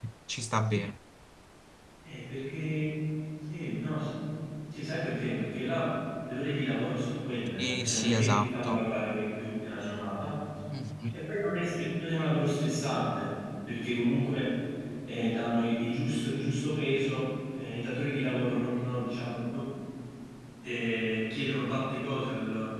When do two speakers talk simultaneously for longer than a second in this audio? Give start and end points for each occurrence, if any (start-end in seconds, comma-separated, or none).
7.6-8.8